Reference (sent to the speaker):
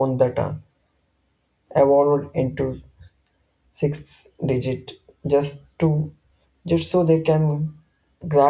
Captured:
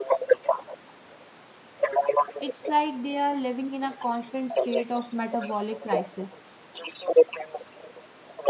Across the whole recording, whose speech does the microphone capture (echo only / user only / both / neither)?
both